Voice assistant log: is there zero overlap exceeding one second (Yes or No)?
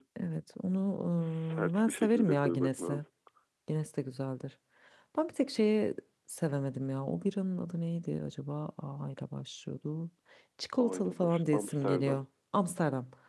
No